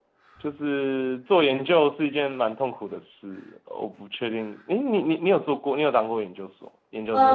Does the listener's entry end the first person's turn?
Yes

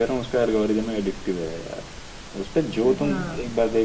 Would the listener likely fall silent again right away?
Yes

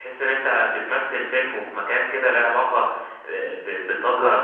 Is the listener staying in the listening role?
Yes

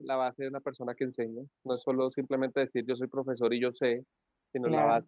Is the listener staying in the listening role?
Yes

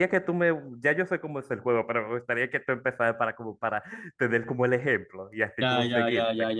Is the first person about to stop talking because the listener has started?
Yes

